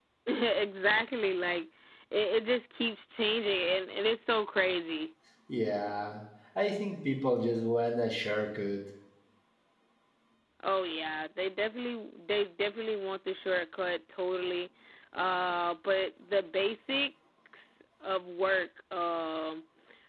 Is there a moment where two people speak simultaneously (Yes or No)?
No